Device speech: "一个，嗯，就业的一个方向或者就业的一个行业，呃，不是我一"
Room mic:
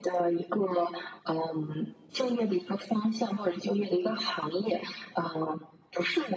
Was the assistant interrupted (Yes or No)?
No